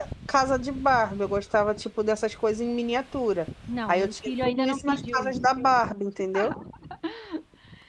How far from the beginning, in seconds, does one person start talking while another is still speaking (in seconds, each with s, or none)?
3.7 s